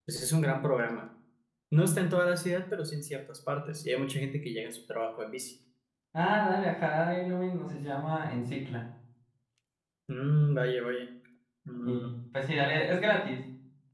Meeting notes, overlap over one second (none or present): none